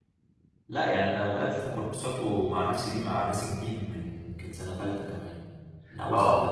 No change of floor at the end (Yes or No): No